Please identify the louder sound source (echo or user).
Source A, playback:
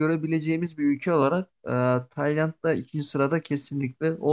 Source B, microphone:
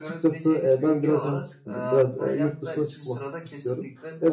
user